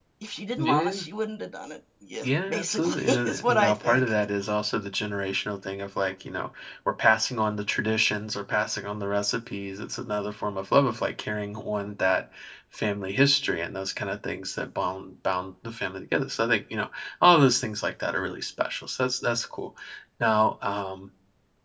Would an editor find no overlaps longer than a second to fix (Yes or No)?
No